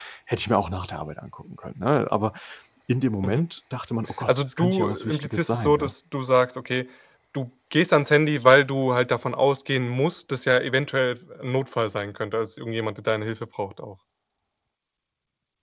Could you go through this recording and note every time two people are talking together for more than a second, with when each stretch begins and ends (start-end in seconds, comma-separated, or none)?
4.3-5.9